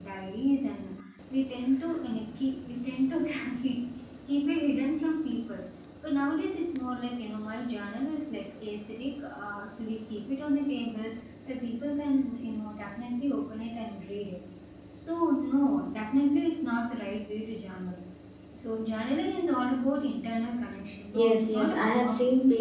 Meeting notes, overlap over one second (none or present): present